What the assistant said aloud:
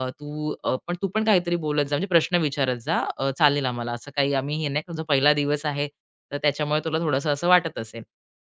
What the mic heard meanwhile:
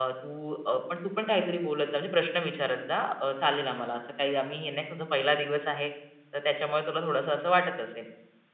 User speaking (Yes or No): No